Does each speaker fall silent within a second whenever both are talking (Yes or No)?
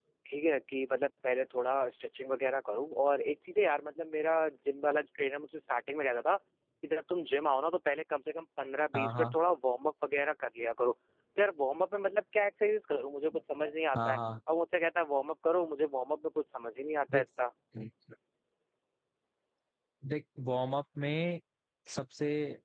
Yes